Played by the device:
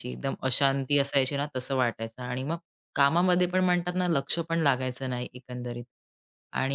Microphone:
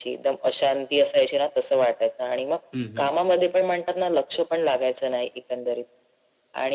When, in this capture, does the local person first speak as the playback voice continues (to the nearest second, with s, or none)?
3 s